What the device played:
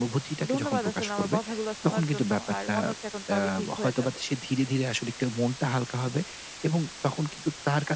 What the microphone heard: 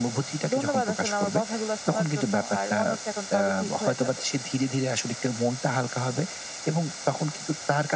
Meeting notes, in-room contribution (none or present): none